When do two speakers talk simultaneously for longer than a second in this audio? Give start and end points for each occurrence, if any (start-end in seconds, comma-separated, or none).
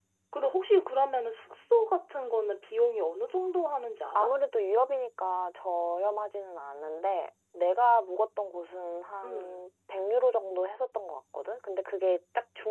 none